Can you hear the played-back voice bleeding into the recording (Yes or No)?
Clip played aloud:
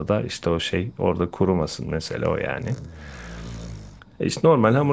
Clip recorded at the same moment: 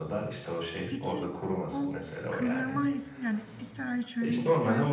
Yes